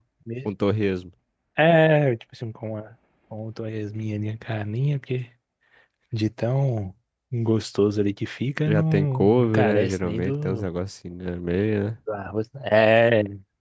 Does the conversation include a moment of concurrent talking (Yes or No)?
Yes